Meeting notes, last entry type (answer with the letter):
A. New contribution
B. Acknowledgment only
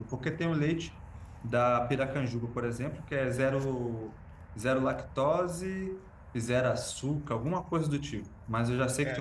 A